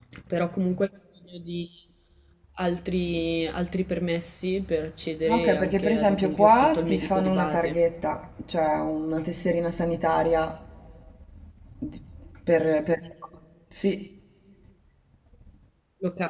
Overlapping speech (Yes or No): Yes